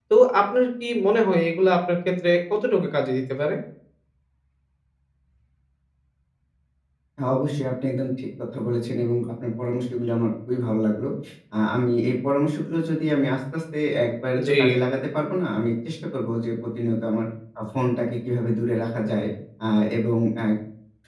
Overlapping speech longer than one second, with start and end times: none

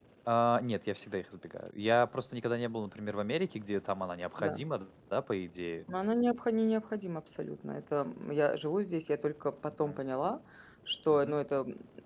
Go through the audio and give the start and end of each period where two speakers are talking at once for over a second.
none

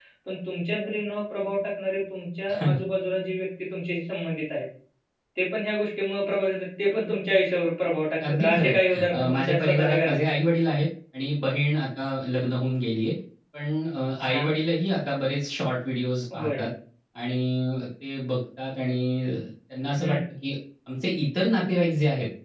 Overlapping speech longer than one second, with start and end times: 8.3-10.2

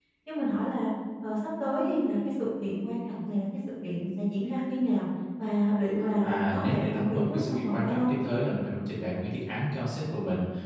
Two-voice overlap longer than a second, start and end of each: 6.2-8.1

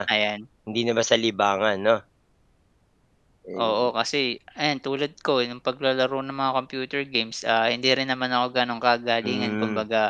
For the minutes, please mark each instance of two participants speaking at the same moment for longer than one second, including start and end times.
none

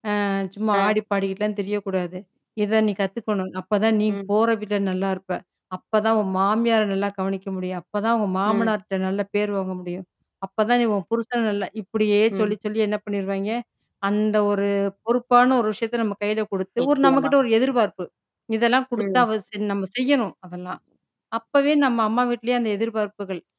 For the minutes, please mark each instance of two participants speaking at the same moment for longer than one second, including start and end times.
none

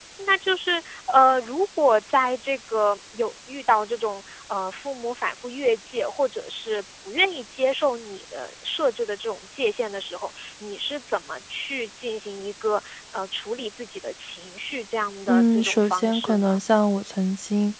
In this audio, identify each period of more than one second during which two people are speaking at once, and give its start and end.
15.3-16.6

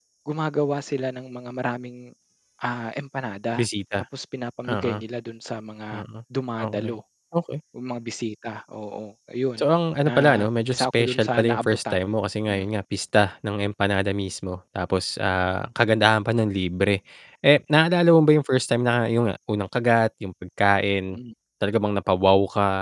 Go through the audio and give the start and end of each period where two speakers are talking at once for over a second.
10.0-12.0

